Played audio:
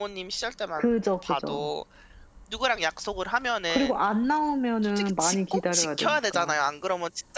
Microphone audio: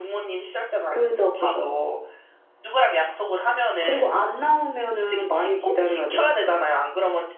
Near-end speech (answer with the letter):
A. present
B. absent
B